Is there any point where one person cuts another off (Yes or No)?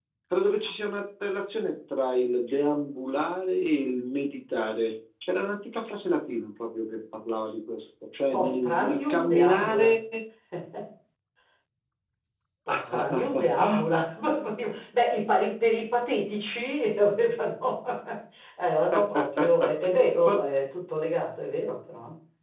Yes